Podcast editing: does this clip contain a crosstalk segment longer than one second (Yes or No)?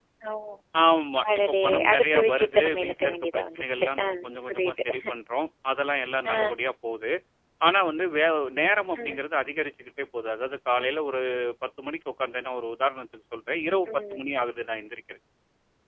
Yes